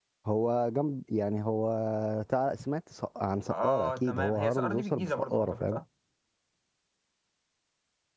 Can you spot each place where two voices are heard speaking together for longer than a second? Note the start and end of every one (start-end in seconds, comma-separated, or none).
3.5-5.8